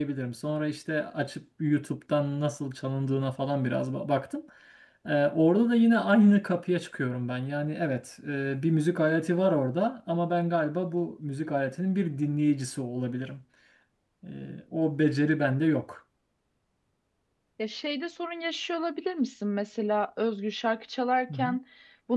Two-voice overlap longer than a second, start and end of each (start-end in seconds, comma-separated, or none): none